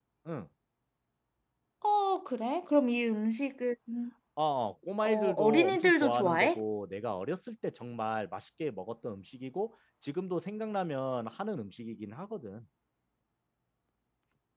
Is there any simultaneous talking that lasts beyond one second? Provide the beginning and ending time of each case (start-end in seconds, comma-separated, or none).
5.0-6.6